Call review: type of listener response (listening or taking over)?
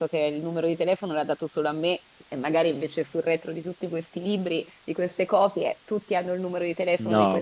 taking over